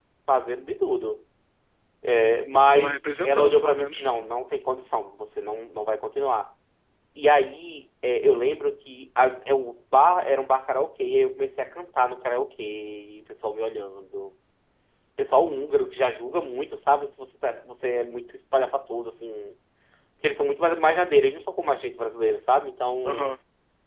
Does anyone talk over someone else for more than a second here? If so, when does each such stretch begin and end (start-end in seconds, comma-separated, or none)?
2.8-4.1